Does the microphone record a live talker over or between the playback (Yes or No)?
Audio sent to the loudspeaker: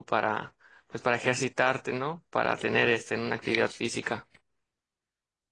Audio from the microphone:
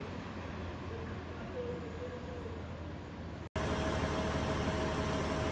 No